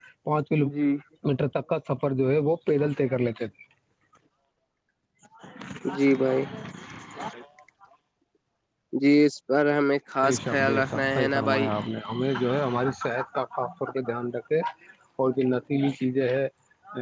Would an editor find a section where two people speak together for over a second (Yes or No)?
Yes